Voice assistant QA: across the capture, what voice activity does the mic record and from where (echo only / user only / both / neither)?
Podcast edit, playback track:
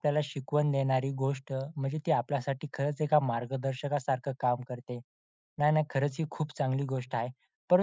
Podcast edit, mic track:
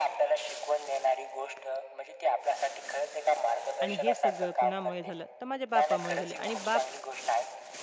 both